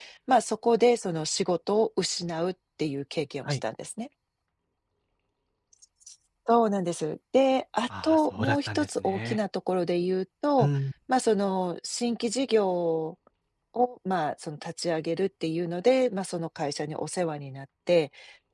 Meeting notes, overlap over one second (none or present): present